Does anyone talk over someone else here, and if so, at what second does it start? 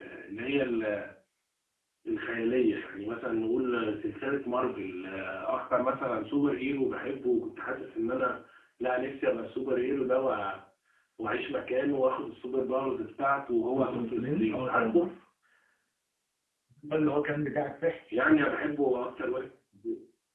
13.7 s

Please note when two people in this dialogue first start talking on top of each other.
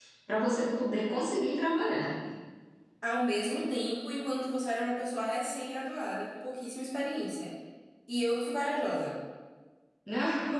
none

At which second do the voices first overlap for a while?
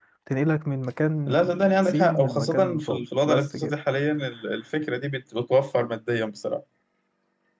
1.3 s

